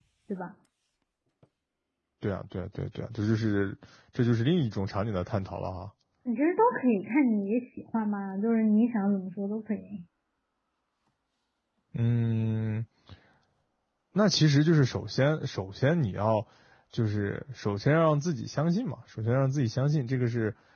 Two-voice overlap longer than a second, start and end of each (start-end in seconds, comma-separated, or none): none